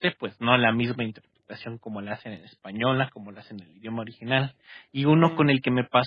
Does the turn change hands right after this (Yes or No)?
No